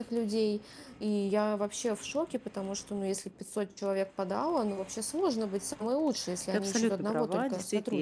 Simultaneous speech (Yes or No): Yes